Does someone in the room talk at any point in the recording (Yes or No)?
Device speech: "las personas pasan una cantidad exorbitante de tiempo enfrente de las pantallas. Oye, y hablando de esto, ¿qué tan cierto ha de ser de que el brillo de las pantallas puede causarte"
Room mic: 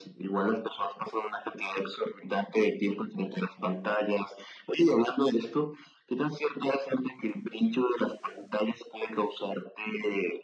No